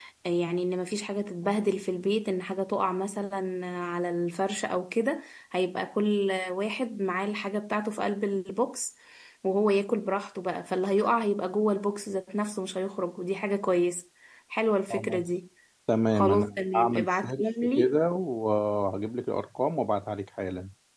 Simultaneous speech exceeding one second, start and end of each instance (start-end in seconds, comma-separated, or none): 16.1-18.0